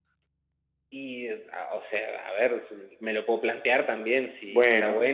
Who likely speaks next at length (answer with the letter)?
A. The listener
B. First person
B